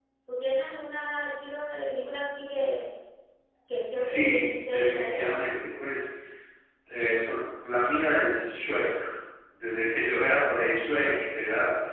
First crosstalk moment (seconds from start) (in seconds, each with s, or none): 4.0 s